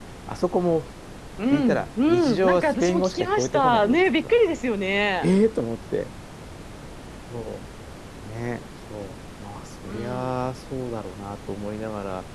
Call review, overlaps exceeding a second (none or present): present